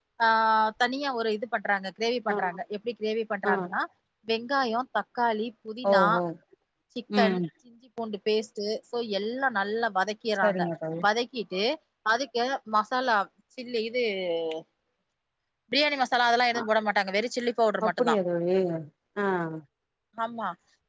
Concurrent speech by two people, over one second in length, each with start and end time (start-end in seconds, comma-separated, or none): none